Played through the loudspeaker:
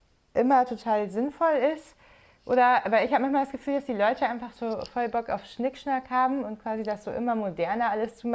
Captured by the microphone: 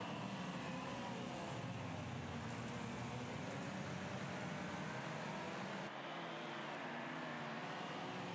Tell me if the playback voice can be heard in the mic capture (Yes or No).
No